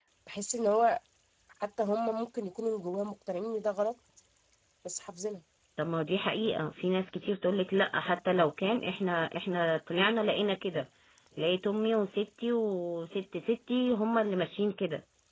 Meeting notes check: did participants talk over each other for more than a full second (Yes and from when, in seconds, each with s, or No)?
No